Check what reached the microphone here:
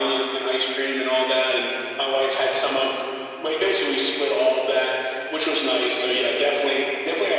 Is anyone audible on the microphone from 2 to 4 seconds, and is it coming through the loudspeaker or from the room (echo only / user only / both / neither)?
echo only